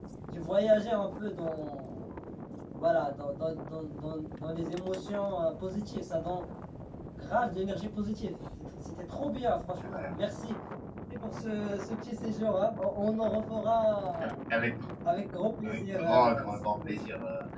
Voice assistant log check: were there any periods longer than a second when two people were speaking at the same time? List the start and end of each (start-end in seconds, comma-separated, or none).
15.6-17.0